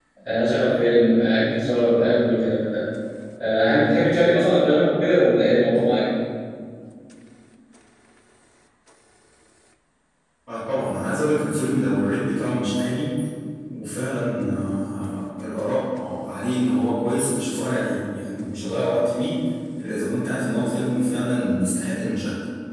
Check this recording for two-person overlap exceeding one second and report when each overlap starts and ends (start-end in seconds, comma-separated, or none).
none